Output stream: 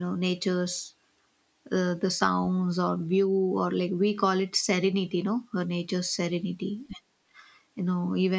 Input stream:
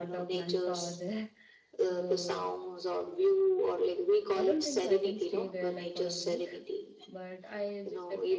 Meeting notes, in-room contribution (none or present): present